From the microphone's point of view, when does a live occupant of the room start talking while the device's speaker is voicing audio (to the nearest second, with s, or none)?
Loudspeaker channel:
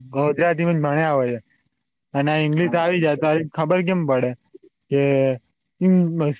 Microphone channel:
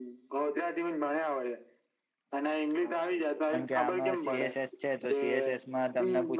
4 s